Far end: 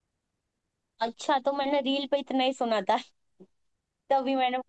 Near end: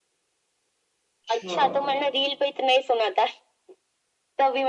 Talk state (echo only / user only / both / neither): both